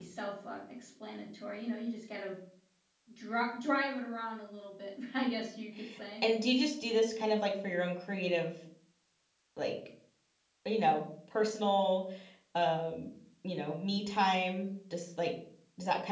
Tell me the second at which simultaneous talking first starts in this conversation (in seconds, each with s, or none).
none